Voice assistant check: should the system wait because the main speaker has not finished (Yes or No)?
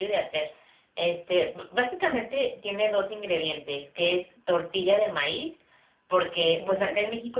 Yes